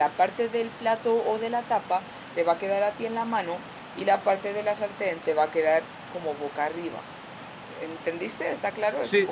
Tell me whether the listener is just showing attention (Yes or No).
No